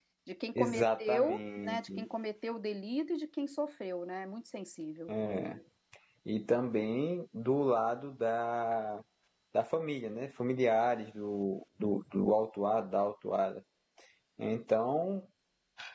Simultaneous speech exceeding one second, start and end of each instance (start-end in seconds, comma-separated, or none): 0.6-2.0